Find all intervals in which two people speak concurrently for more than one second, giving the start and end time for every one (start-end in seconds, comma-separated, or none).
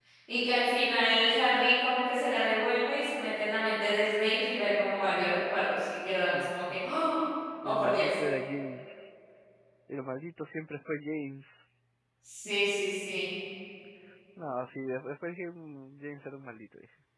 none